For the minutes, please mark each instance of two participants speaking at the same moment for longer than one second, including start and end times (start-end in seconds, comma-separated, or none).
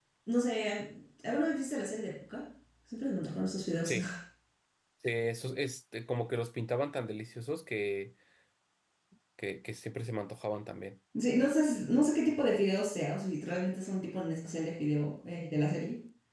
none